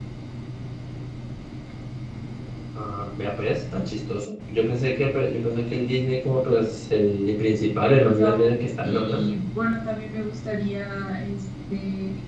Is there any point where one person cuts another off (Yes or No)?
Yes